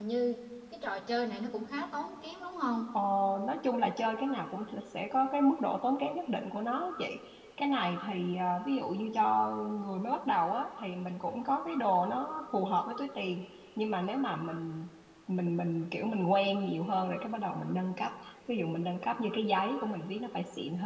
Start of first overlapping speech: none

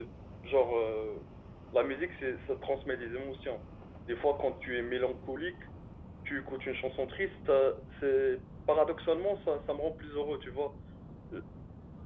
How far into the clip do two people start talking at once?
none

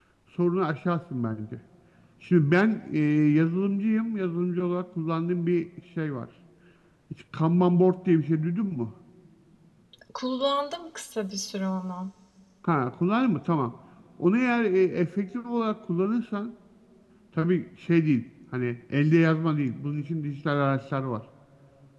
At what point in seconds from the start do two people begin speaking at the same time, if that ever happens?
none

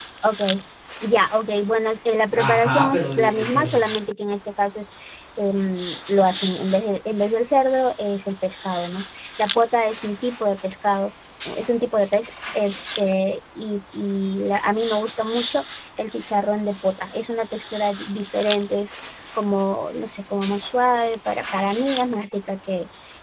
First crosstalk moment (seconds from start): 2.3 s

